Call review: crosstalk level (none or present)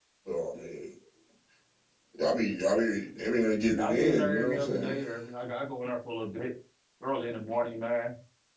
present